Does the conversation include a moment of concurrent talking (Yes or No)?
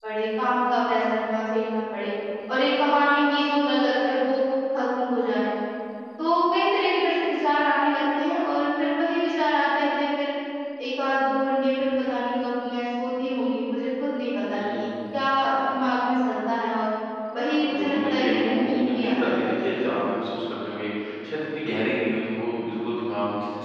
Yes